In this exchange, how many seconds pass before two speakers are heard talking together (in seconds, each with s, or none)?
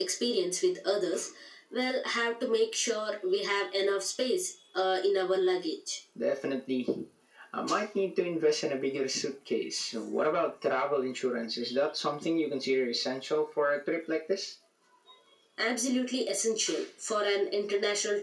none